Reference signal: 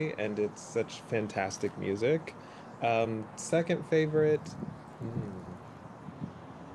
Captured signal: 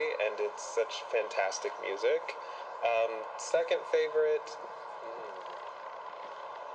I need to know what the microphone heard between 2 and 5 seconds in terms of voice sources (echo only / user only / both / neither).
echo only